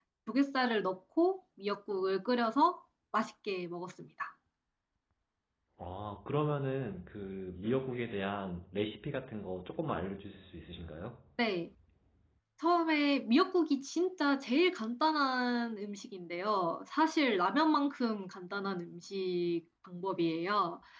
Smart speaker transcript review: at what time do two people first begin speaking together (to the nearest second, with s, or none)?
none